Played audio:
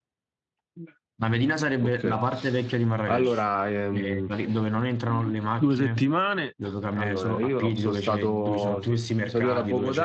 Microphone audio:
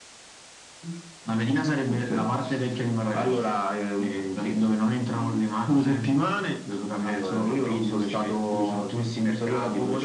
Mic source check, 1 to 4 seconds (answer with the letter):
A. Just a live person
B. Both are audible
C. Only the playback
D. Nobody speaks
C